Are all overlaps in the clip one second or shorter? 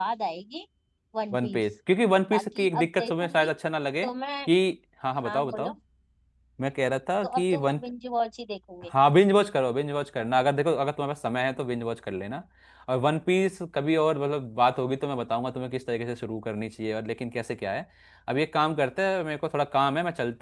No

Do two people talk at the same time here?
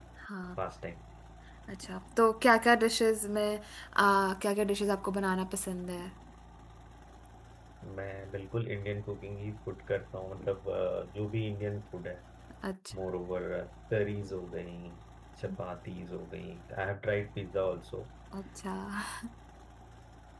No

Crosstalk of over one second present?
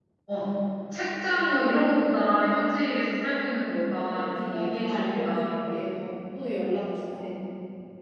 Yes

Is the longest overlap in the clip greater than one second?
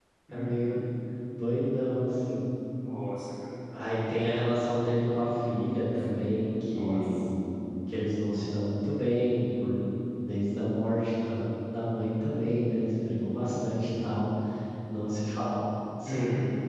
No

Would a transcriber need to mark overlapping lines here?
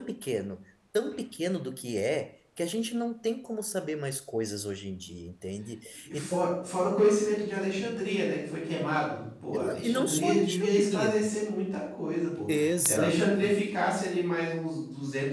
Yes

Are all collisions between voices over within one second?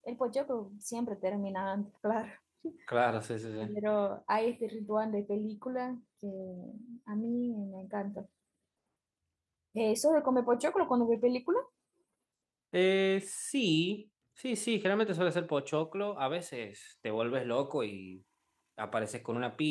Yes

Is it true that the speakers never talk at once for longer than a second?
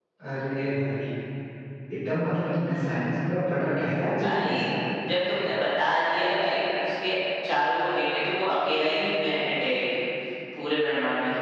Yes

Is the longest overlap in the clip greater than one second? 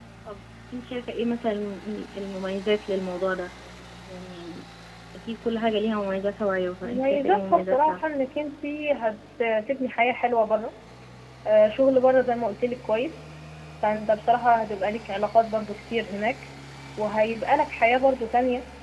Yes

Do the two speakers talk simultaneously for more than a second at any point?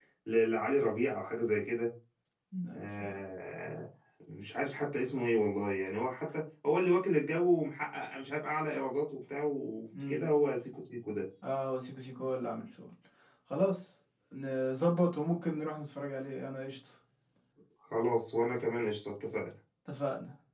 No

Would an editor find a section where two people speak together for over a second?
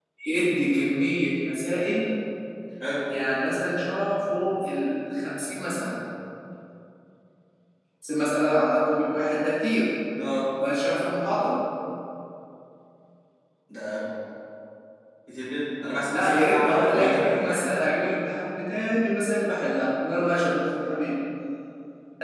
Yes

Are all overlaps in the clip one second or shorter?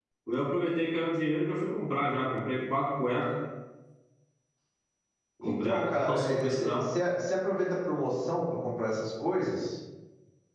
No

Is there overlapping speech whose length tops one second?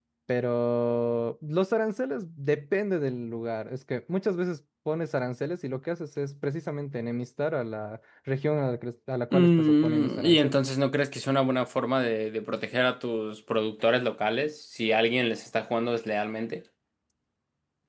Yes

